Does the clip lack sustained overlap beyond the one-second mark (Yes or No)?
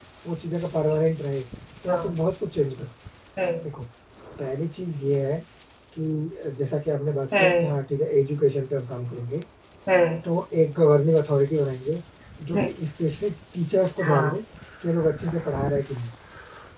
Yes